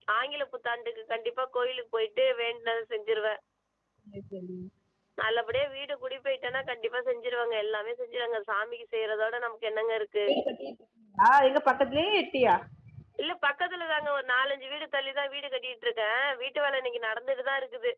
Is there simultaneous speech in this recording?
No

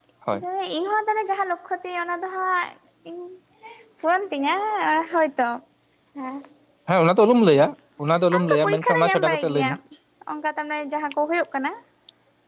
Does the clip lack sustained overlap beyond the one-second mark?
No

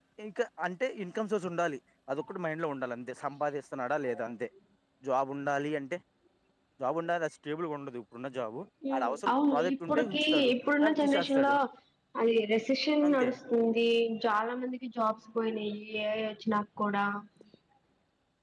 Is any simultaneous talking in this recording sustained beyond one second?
Yes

